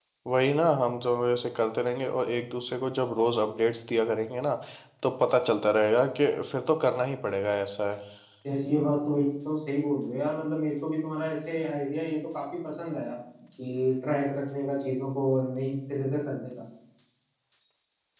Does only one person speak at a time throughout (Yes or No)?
Yes